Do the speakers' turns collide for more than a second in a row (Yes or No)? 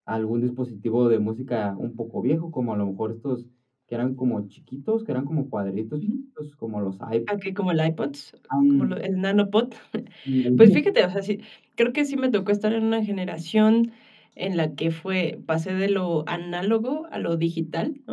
No